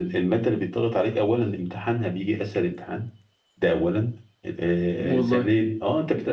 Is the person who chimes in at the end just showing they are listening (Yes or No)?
Yes